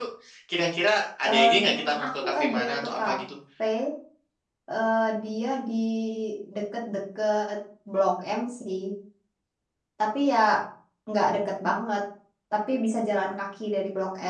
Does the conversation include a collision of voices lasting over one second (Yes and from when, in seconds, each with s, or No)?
Yes, from 1.2 s